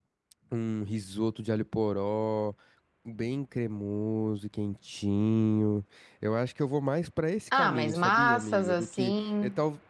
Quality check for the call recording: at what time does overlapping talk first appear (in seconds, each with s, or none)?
7.5 s